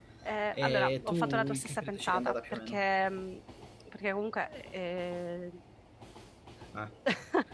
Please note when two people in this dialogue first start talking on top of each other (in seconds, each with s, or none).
0.5 s